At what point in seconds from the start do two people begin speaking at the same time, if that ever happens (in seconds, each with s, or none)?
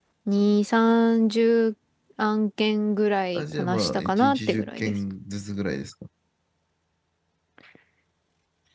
3.4 s